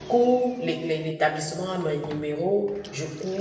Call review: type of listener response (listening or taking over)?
listening